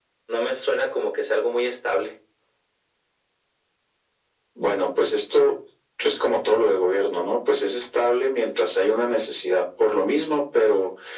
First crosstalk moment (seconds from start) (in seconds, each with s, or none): none